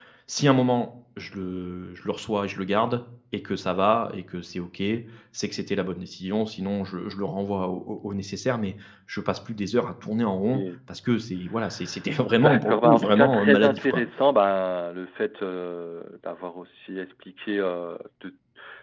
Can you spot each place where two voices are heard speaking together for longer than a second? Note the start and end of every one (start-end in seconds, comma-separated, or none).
12.3-14.0